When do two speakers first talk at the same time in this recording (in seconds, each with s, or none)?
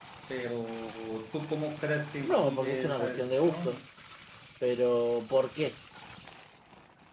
2.3 s